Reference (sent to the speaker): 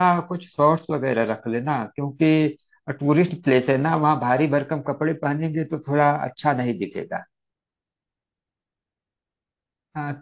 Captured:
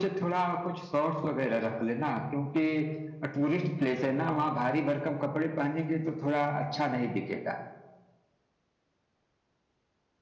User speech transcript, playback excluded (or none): none